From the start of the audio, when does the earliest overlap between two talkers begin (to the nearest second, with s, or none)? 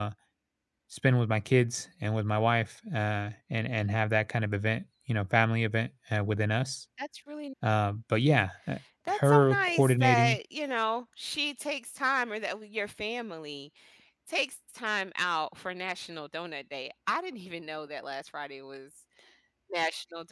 9 s